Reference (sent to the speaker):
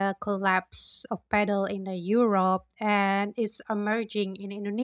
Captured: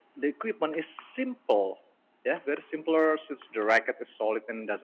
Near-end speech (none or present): present